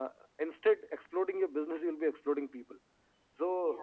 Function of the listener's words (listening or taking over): listening